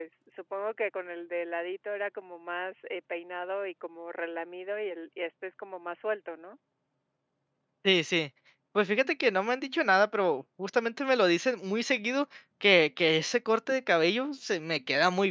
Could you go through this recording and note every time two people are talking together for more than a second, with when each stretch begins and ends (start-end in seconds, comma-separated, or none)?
none